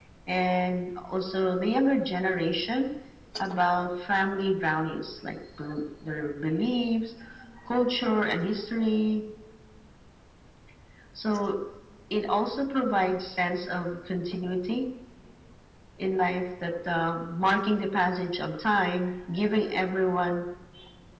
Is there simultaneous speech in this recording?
No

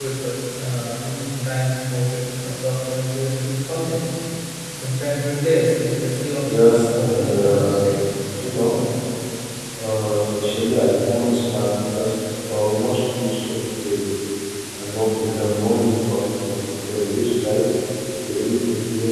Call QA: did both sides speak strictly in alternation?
No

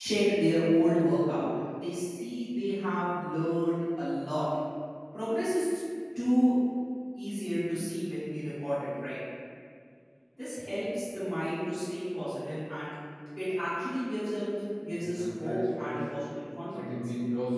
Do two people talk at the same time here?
Yes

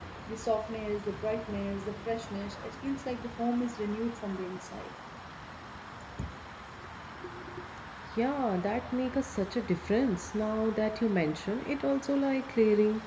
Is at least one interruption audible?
No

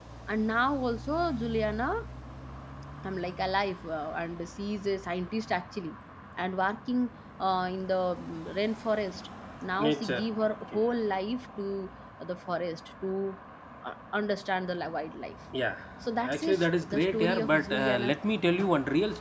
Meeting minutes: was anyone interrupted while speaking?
Yes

